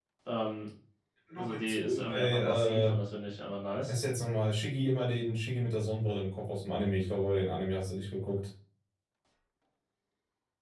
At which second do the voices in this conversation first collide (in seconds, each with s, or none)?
1.4 s